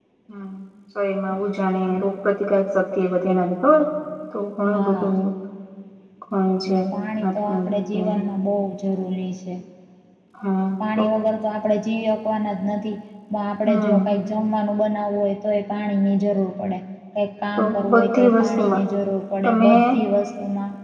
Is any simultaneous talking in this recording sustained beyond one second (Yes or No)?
Yes